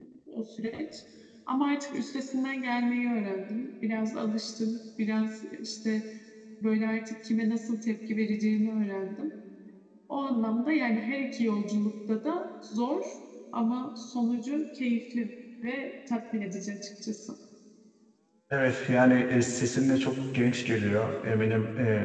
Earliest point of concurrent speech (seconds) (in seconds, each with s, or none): none